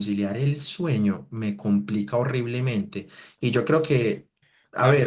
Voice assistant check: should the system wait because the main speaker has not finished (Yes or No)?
No